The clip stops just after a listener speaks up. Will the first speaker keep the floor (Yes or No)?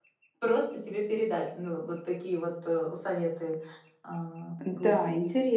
No